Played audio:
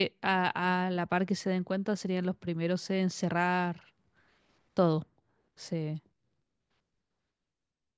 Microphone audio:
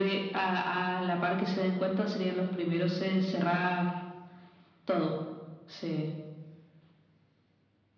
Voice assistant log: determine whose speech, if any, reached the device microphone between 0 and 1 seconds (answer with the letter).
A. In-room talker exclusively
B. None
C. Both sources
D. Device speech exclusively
D